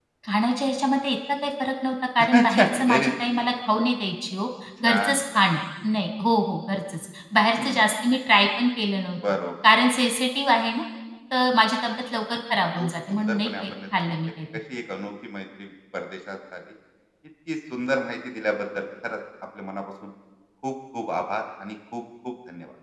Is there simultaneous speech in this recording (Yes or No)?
Yes